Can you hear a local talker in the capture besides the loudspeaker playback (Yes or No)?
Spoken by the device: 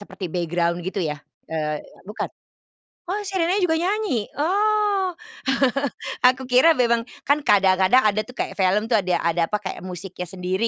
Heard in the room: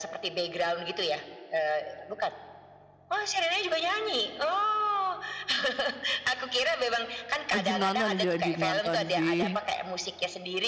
Yes